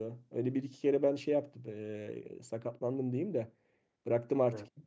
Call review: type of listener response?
listening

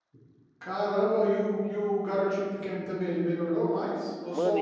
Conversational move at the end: taking over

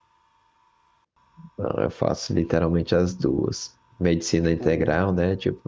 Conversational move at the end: listening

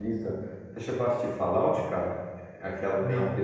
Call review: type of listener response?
listening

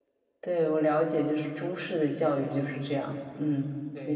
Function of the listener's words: taking over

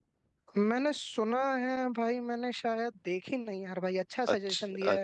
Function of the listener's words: taking over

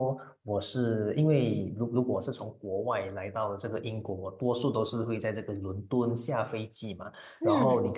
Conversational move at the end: listening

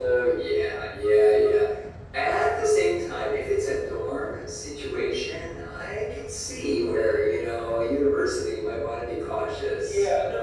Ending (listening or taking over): taking over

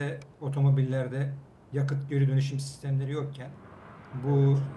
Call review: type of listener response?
listening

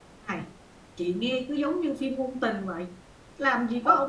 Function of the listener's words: listening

